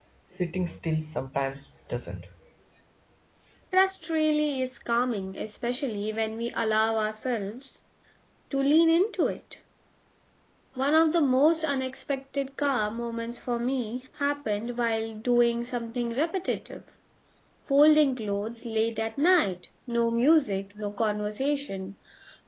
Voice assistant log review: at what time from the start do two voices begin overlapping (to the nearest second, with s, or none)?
none